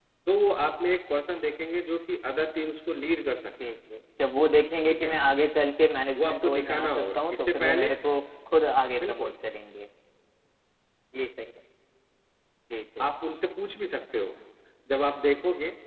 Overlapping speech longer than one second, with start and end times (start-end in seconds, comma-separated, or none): 6.2-7.9